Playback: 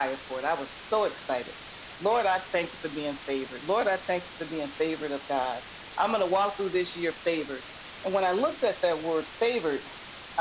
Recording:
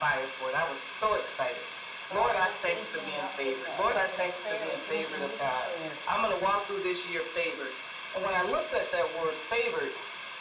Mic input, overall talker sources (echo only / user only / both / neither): both